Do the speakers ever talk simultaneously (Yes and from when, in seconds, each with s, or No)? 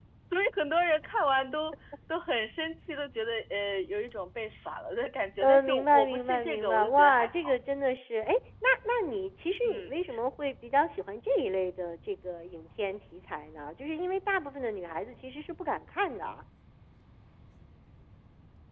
Yes, from 5.4 s